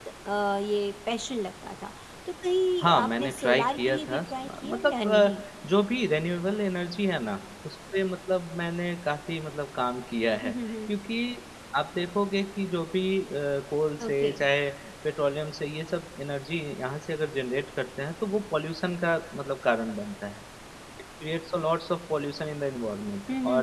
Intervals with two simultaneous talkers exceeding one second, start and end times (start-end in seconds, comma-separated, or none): 2.8-5.4